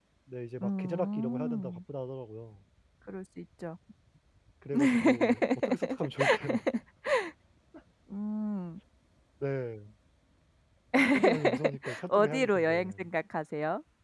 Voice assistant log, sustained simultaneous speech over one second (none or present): present